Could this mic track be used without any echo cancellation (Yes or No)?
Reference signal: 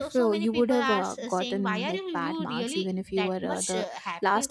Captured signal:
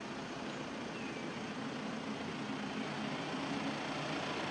Yes